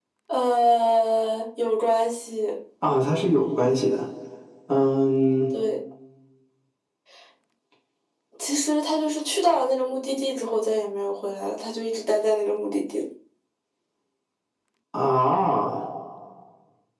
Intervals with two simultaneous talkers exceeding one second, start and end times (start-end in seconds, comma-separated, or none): none